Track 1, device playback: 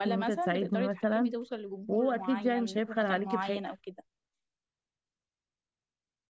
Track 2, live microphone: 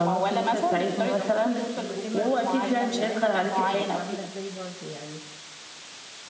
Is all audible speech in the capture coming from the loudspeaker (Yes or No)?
No